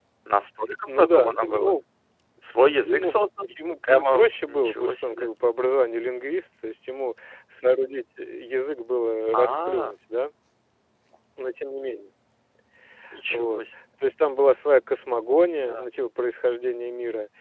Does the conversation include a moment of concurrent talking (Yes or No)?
Yes